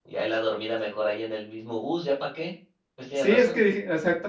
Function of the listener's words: taking over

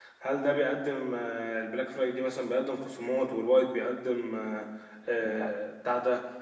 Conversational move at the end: listening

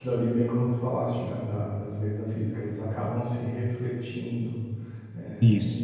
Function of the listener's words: listening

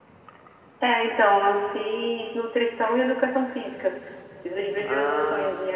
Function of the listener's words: listening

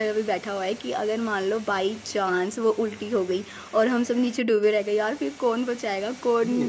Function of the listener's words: taking over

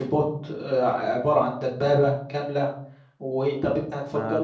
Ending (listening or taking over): taking over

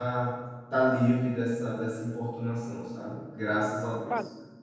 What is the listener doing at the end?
taking over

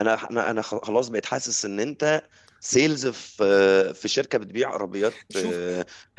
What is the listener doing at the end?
listening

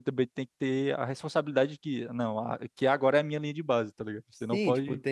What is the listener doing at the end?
taking over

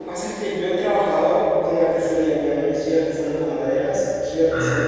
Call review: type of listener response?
listening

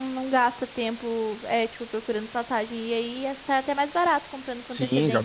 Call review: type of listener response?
taking over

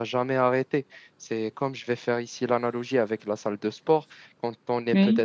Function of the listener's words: listening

